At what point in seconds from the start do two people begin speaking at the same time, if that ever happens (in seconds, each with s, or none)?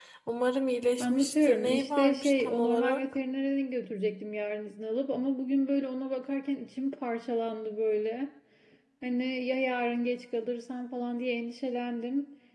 1.0 s